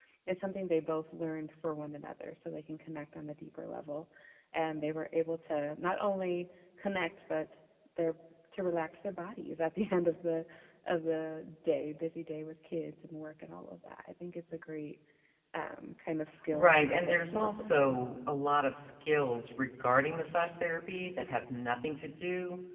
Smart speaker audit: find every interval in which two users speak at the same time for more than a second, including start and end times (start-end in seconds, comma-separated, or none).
16.5-18.0